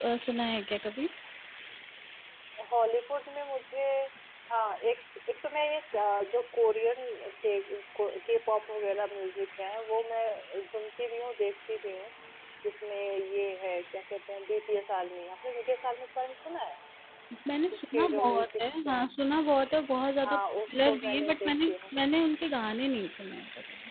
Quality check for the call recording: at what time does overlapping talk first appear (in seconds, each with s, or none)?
17.7 s